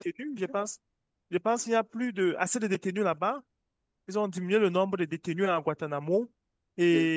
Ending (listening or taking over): listening